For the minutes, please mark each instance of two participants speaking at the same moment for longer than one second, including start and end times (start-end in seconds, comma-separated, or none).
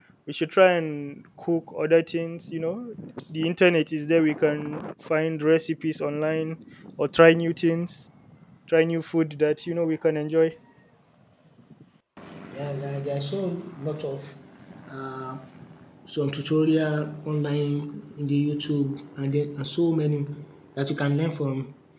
none